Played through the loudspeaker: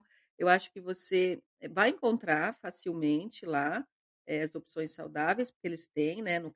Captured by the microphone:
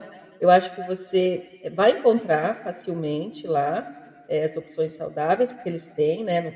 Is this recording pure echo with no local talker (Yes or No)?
Yes